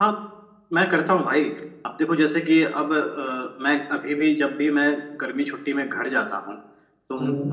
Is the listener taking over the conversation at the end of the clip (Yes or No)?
No